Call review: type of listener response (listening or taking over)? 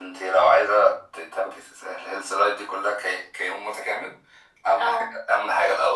listening